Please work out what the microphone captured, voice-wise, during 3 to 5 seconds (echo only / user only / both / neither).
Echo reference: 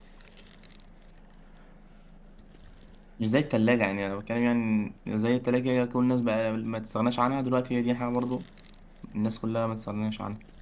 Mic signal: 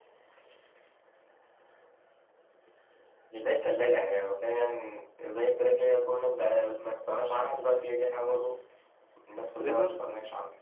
echo only